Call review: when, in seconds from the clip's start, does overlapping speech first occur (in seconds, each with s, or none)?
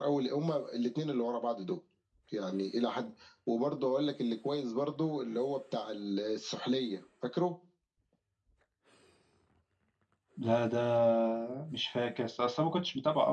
none